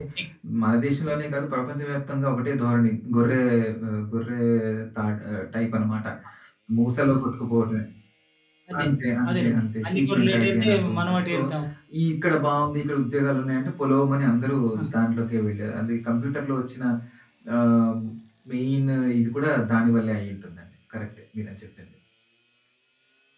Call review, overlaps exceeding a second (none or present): present